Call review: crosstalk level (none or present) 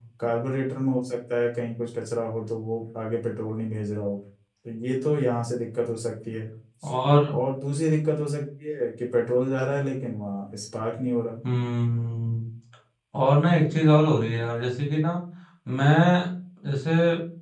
none